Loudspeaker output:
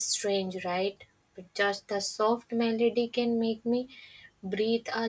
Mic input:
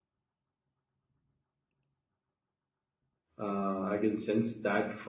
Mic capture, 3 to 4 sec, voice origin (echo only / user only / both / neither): user only